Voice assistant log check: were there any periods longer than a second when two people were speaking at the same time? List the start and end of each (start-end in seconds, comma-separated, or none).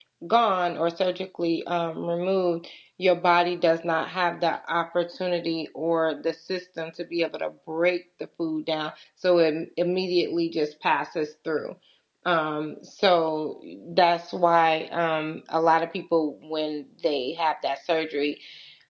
none